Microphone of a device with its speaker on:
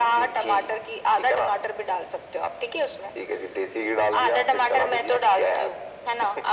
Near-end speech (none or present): none